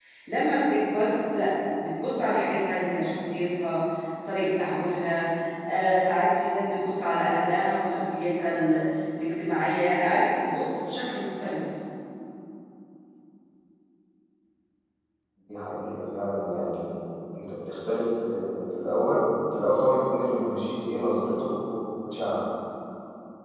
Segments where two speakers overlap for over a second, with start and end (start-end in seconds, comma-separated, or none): none